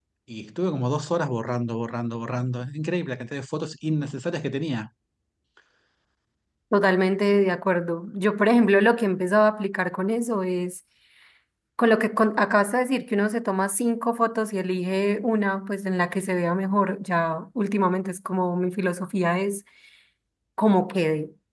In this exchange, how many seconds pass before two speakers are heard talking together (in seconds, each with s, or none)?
none